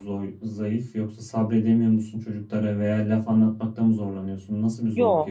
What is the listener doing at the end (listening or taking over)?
taking over